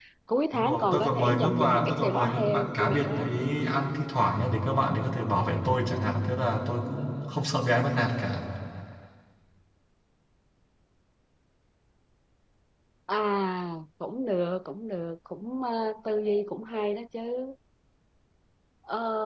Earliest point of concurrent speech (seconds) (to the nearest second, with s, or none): 1 s